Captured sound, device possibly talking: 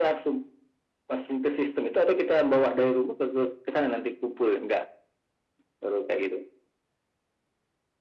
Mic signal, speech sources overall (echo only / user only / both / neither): echo only